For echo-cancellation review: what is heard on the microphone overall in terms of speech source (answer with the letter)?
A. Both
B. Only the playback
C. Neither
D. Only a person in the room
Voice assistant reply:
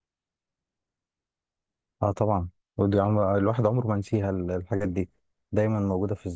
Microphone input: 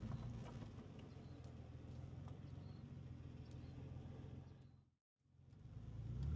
C